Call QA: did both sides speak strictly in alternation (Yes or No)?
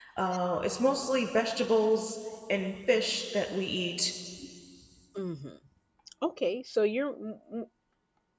Yes